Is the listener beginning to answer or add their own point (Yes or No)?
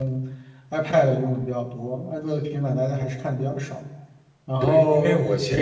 Yes